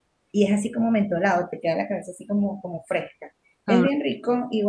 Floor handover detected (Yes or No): No